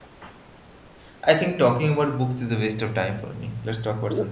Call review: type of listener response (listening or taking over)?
taking over